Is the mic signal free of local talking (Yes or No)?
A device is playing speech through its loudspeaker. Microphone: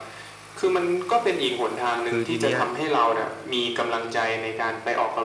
No